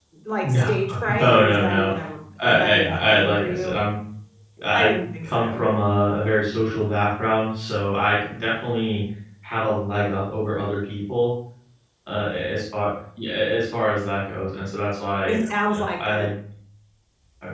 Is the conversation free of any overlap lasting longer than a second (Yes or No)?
No